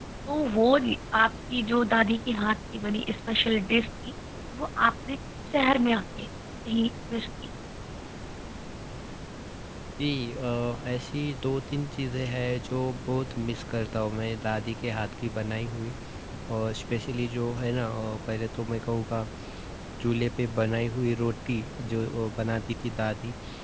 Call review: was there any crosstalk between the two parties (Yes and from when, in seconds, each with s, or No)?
No